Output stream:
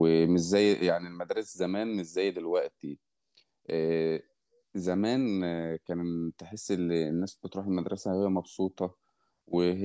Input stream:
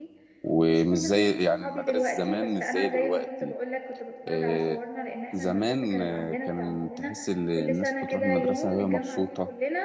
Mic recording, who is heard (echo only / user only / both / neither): both